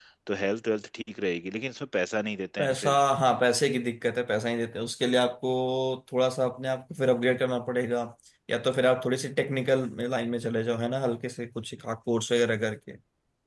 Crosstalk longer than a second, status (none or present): none